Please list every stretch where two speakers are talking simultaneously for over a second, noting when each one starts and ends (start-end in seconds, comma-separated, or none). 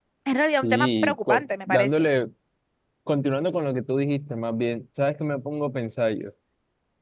0.6-1.9